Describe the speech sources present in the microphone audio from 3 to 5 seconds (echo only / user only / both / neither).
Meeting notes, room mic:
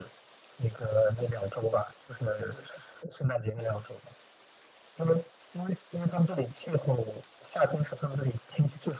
echo only